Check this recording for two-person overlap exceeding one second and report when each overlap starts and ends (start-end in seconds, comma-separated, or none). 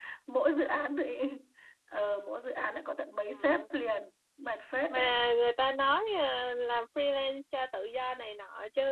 none